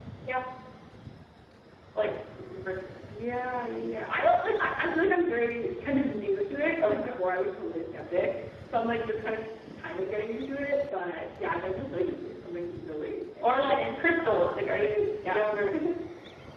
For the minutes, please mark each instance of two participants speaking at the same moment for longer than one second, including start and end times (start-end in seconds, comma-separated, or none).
13.4-14.8